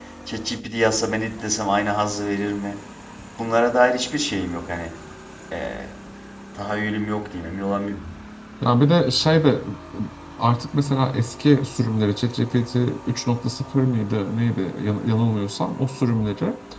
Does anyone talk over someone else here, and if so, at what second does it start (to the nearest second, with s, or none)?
none